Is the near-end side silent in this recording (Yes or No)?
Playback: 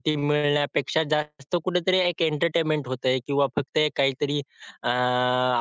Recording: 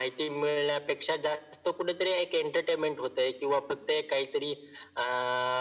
Yes